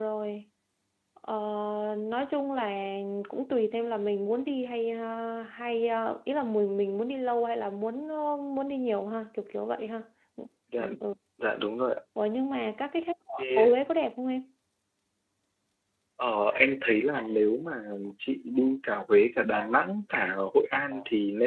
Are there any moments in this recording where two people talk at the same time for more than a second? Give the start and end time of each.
none

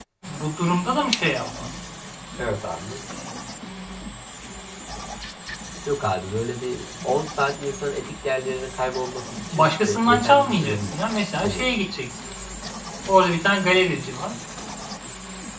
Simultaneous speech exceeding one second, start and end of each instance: 9.5-10.9

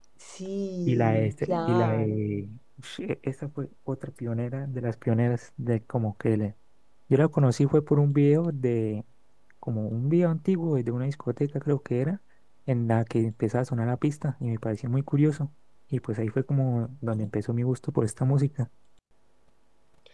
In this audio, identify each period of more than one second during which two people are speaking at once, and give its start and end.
0.9-2.2

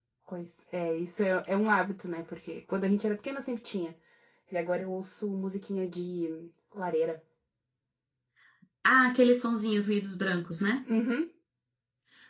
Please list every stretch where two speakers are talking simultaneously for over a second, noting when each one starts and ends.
none

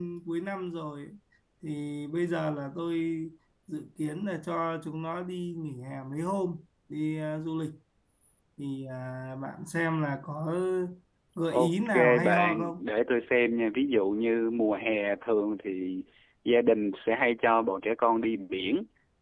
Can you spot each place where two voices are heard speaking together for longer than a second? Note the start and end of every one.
11.5-12.9

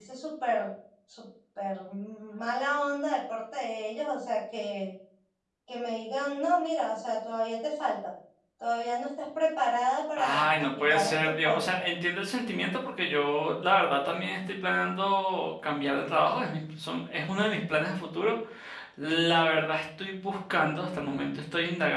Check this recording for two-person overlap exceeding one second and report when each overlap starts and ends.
10.2-11.6

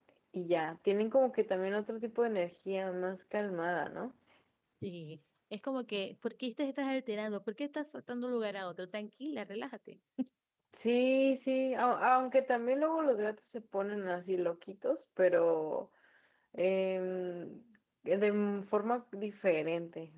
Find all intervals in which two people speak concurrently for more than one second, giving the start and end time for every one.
none

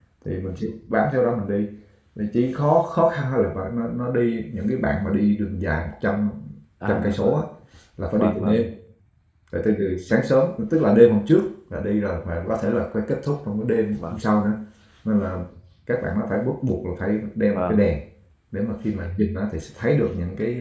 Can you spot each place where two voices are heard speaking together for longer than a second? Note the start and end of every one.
none

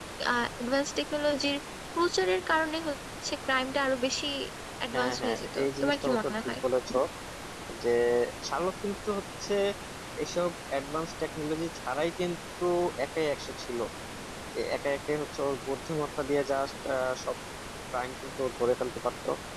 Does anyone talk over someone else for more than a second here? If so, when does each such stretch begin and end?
4.9-6.5

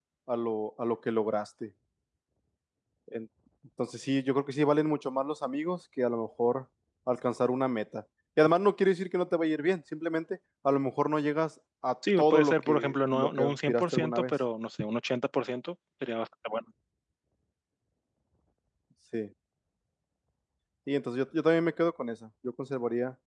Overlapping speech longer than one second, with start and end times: 12.2-14.3

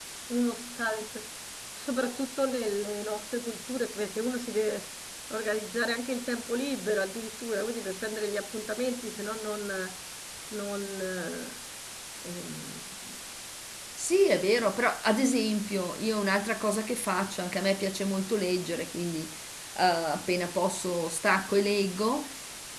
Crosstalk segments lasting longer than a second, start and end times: none

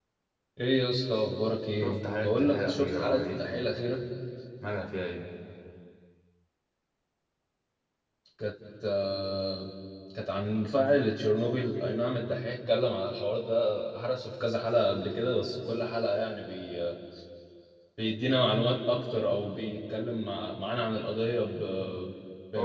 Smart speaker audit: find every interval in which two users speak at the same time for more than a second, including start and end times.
1.8-3.6

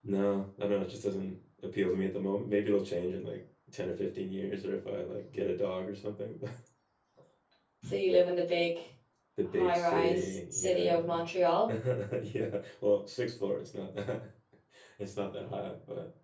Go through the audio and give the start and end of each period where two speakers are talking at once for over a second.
9.6-11.2

